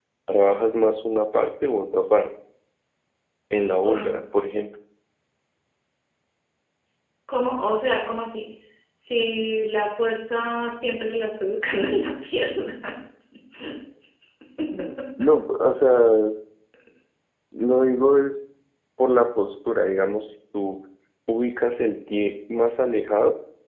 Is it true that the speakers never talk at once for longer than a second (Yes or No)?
Yes